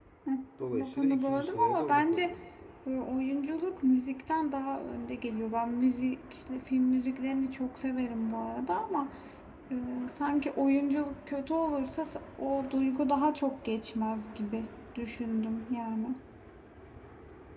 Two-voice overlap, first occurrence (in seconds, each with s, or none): 0.8 s